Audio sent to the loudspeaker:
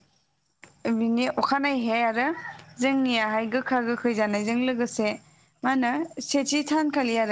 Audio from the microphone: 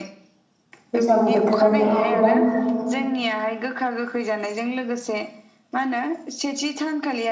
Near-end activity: present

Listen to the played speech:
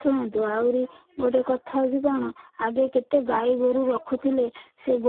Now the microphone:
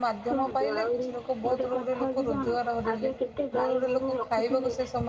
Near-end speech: present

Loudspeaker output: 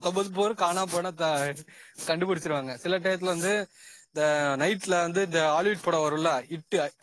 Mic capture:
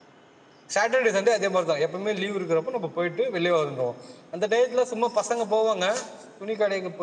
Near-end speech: present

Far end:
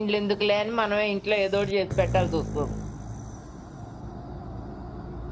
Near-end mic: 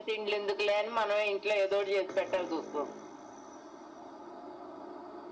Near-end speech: none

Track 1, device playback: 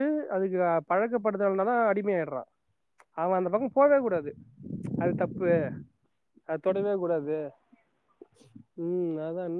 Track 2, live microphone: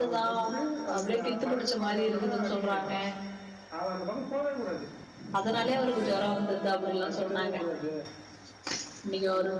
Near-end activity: present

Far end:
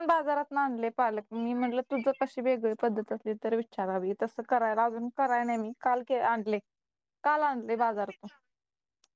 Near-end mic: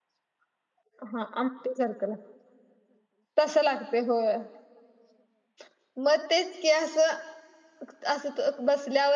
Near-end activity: present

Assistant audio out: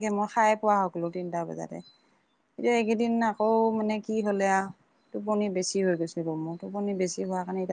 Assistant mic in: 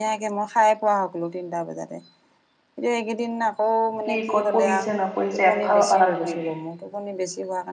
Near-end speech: present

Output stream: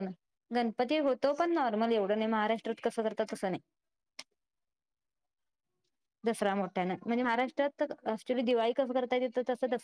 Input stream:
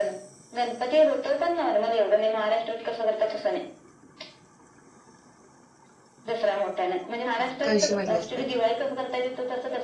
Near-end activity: present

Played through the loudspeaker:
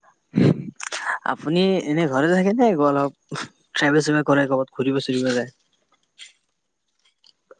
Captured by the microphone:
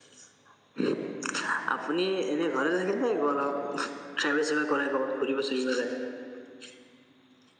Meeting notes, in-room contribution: none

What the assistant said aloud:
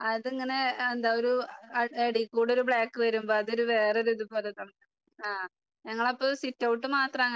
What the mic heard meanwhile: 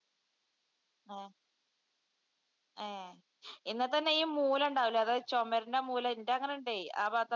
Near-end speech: present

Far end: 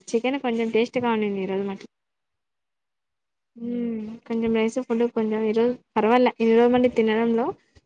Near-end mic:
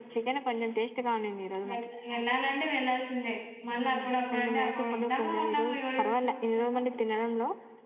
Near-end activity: present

